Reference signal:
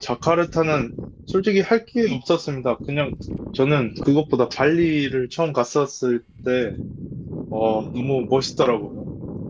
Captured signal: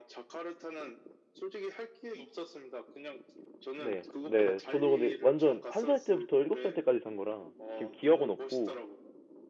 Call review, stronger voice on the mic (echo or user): user